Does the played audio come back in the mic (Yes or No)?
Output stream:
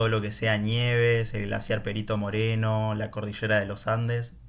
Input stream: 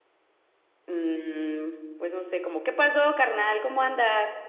No